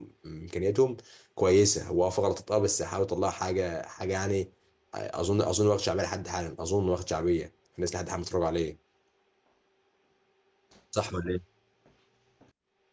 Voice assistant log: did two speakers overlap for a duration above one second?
No

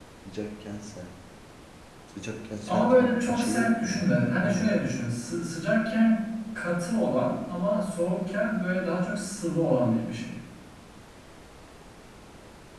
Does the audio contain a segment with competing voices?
Yes, from 2.7 s

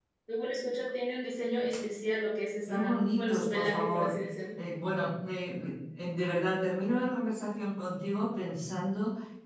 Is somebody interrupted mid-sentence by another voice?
Yes, from 2.7 s

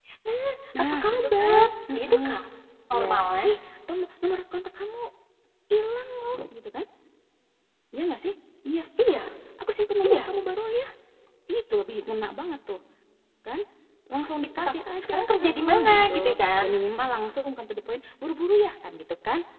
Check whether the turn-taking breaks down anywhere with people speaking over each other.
Yes, from 0.9 s

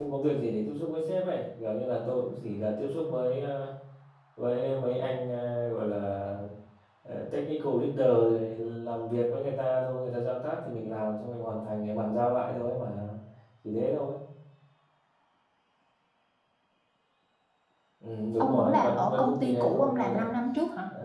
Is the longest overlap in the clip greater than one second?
Yes, from 18.4 s

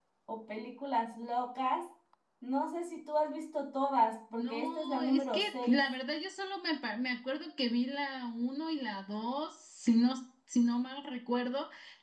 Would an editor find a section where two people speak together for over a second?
Yes, from 4.3 s

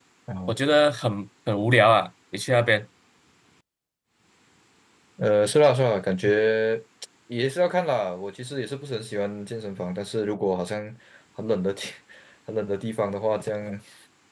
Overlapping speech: No

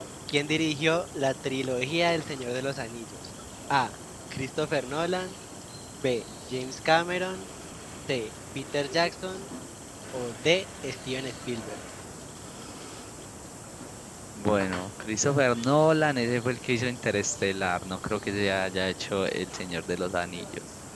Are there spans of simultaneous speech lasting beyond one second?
No

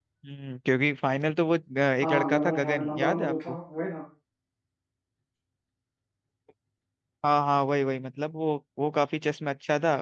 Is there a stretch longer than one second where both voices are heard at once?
Yes, from 2.0 s

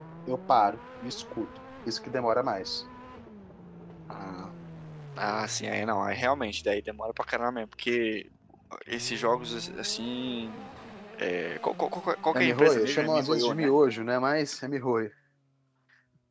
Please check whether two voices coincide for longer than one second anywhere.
Yes, from 12.3 s

